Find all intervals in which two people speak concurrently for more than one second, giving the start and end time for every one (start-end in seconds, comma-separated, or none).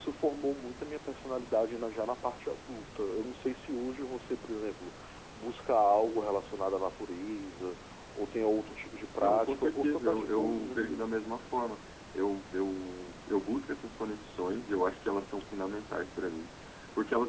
9.2-11.3